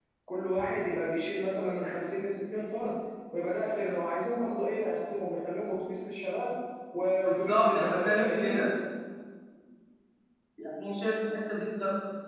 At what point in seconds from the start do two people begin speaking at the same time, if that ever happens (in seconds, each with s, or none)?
7.2 s